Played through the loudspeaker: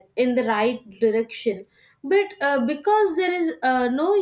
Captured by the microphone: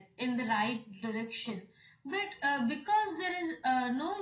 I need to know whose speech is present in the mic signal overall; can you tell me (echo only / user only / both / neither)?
echo only